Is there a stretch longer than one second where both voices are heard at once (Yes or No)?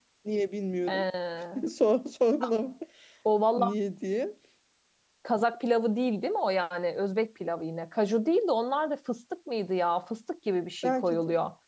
No